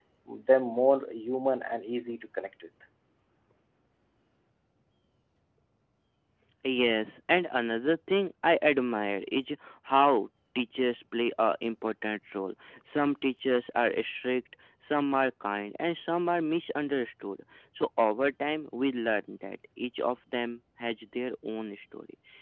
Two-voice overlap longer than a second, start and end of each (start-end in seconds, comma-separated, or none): none